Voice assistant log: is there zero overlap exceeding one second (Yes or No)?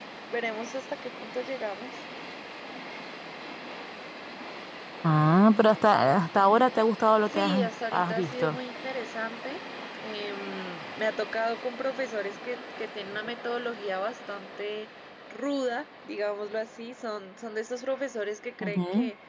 No